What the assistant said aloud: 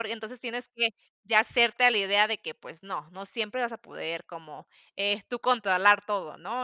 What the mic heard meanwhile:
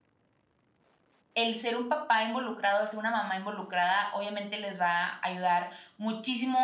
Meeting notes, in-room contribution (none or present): present